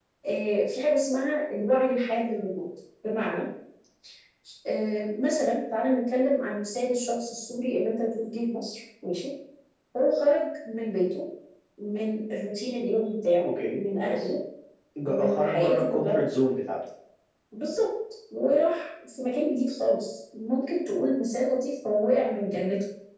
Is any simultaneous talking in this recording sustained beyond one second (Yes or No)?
Yes